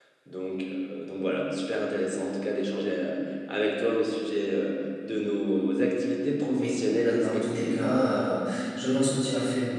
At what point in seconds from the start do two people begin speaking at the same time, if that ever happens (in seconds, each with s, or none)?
6.4 s